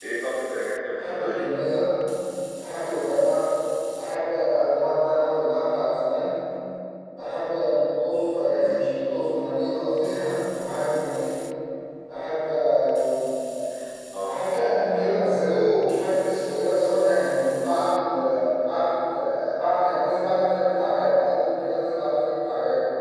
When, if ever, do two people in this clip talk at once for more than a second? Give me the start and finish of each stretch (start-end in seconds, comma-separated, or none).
none